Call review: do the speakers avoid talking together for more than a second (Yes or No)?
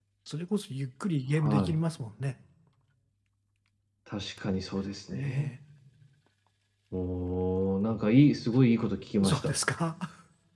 Yes